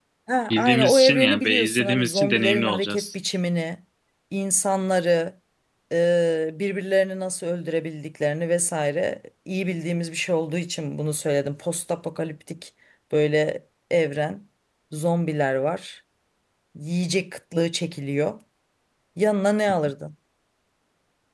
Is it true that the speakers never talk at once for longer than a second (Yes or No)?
No